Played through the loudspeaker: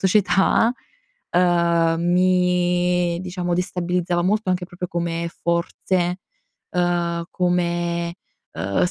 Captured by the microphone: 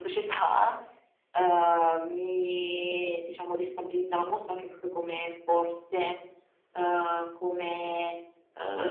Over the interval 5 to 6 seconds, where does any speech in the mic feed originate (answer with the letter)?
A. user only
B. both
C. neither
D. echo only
D